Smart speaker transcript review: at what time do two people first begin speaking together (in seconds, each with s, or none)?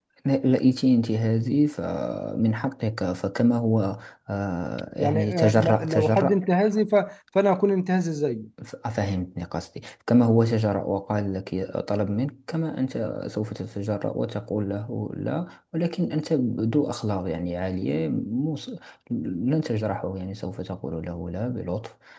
5.0 s